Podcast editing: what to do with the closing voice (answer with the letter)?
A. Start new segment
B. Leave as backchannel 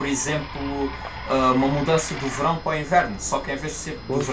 B